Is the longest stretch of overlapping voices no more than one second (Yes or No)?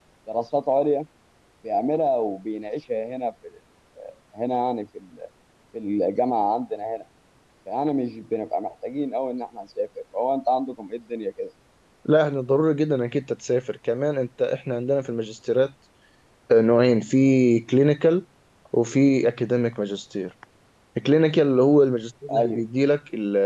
Yes